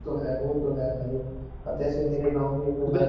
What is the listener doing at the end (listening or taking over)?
listening